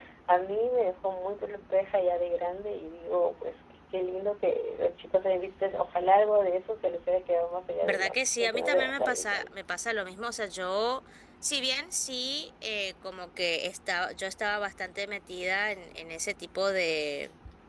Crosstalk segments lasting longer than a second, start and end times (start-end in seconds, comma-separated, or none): 7.8-9.5